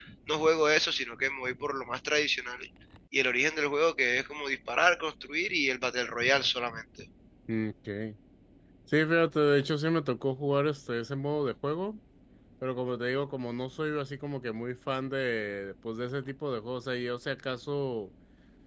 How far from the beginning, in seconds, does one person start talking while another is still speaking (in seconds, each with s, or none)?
none